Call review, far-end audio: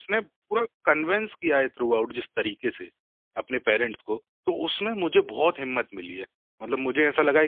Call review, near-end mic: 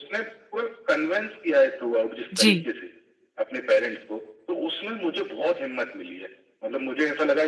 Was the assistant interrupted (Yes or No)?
Yes